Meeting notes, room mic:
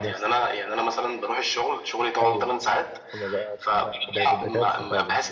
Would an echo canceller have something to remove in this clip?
Yes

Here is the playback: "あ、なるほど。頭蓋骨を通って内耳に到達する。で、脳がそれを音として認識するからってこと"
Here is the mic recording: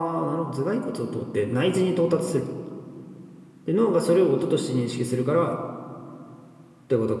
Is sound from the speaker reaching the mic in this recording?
Yes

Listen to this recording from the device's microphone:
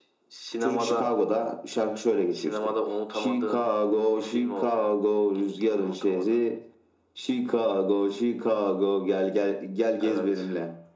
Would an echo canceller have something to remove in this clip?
Yes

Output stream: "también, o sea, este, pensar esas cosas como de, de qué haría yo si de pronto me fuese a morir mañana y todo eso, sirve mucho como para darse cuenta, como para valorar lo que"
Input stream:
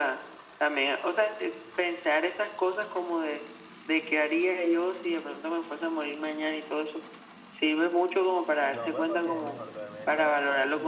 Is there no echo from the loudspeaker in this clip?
No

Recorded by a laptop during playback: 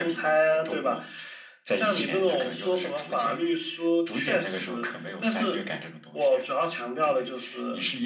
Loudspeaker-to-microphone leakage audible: Yes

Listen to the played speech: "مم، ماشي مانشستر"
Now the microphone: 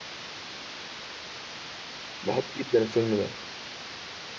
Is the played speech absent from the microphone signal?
Yes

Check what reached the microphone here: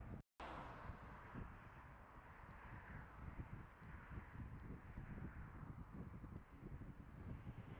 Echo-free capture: Yes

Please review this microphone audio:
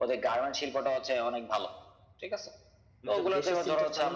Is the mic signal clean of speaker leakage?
No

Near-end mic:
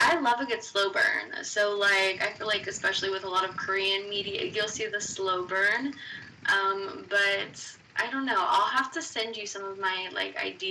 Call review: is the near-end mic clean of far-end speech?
No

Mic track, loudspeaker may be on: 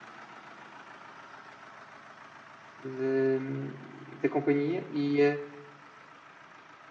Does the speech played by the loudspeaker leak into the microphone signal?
No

